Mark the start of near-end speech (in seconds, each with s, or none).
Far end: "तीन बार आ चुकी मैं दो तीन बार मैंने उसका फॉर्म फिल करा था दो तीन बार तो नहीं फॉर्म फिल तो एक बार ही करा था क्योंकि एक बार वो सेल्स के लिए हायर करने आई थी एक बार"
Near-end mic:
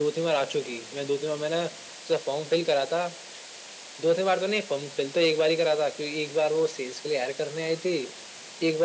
none